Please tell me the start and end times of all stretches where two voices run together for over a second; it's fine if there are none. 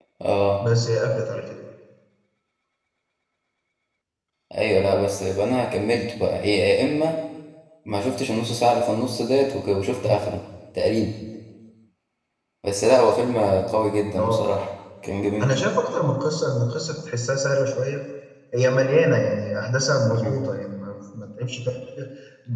none

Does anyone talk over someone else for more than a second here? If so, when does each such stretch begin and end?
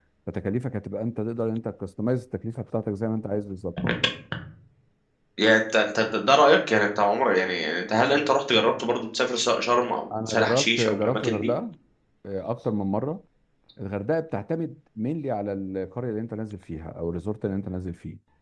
10.3-11.5

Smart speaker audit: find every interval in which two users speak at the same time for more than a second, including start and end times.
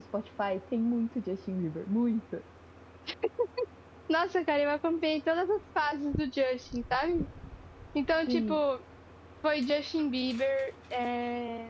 none

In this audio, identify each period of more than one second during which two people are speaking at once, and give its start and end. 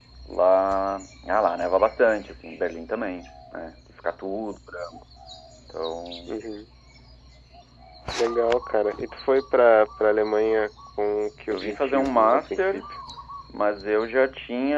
11.5-12.8

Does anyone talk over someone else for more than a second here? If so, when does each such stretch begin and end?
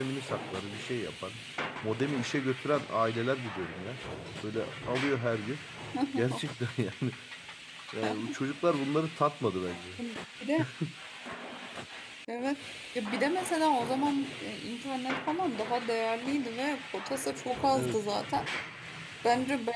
none

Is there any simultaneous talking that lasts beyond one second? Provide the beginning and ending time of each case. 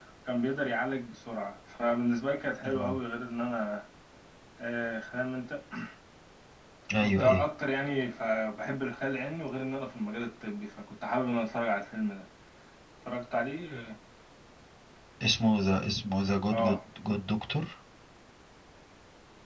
none

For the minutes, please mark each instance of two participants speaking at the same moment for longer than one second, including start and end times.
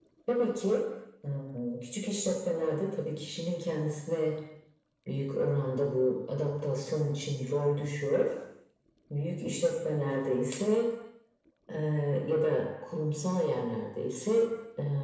none

